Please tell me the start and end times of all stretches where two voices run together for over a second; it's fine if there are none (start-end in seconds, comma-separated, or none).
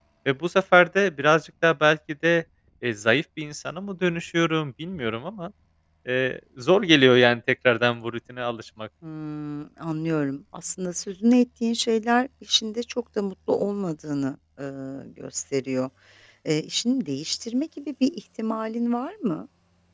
none